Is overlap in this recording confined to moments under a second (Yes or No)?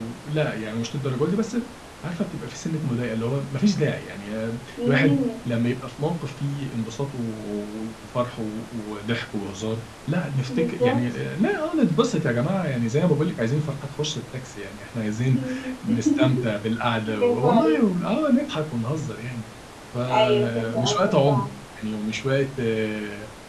No